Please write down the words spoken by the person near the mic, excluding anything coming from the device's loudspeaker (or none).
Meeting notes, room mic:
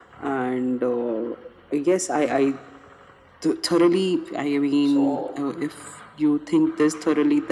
so